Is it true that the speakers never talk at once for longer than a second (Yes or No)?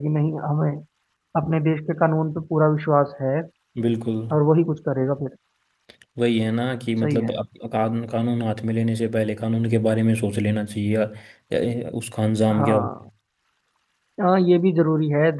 Yes